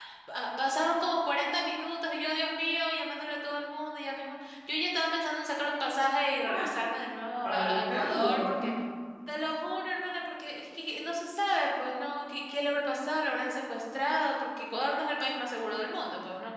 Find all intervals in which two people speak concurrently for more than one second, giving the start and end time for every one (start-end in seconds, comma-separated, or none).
7.4-8.7